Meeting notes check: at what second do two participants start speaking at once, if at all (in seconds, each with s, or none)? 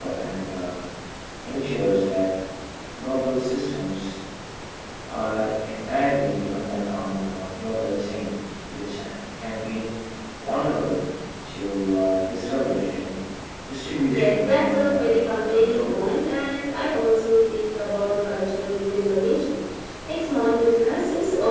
14.1 s